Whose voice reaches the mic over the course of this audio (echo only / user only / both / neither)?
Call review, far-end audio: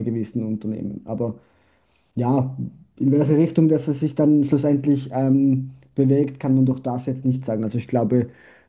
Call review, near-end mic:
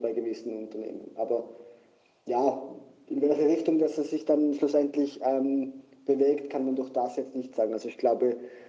echo only